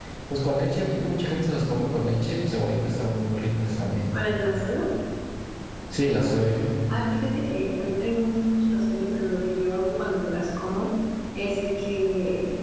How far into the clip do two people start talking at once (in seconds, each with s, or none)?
none